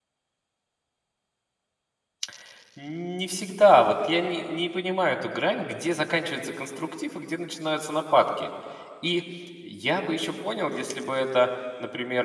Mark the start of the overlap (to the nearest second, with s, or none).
none